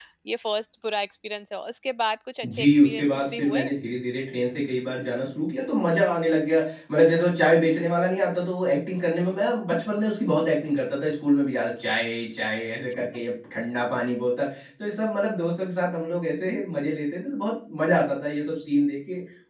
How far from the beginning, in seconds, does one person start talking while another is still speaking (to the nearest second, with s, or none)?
2 s